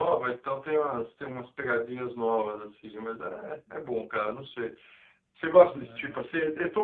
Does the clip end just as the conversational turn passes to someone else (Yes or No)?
No